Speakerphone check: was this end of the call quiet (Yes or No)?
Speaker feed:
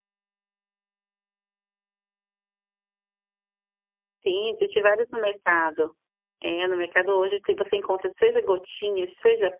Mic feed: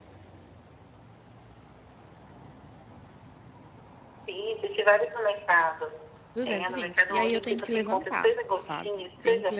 No